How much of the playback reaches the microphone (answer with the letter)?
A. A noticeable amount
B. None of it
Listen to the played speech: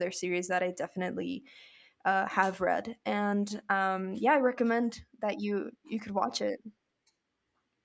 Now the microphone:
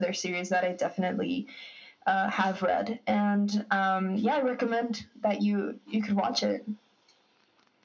A